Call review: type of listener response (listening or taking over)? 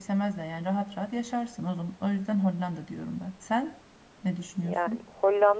taking over